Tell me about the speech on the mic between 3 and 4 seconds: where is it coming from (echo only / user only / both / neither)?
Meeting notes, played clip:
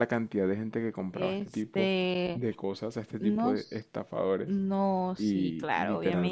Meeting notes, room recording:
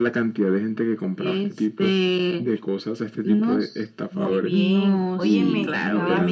echo only